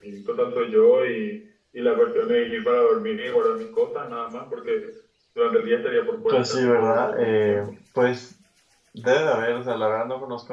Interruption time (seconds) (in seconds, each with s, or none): 6.3 s